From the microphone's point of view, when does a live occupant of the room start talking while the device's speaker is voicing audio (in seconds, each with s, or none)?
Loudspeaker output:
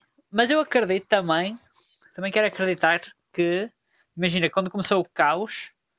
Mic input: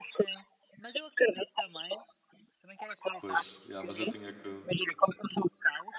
3.2 s